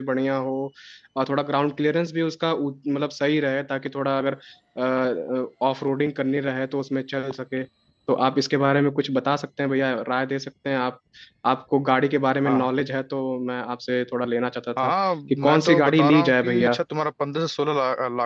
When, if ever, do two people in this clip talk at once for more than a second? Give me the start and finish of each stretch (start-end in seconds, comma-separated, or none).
15.3-16.8